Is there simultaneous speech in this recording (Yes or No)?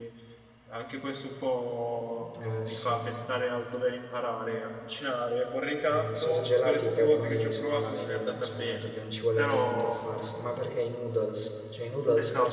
Yes